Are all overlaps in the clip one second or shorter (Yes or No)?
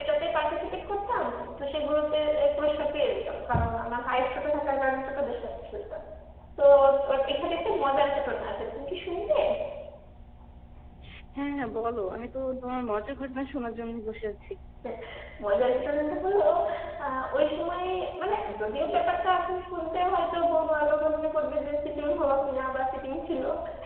Yes